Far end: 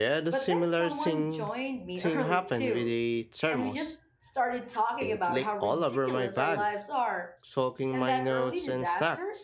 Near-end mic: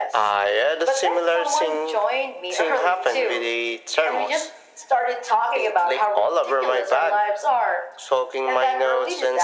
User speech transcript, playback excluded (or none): none